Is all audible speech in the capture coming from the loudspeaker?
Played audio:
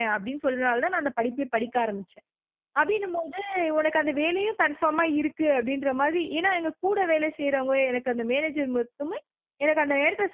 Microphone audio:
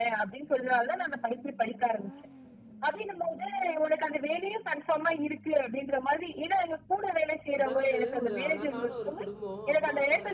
No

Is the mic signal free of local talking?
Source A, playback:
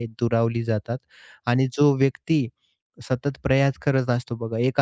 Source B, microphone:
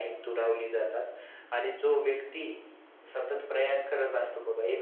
Yes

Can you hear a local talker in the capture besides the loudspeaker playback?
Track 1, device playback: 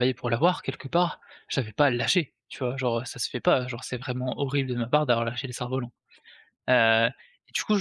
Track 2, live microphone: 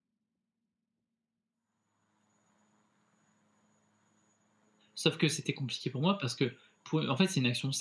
Yes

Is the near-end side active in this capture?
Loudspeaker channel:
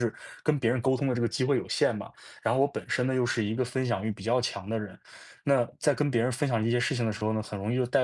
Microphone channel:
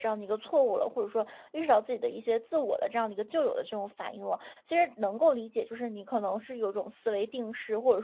Yes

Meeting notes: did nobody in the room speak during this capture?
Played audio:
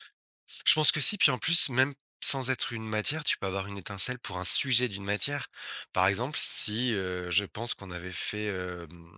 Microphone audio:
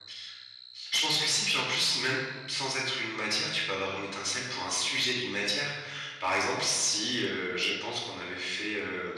Yes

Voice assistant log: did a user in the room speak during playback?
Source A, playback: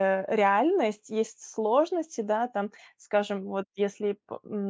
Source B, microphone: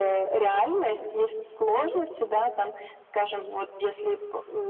No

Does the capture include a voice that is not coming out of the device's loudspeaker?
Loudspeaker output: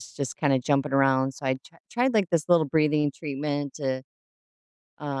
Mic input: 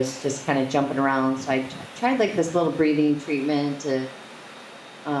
No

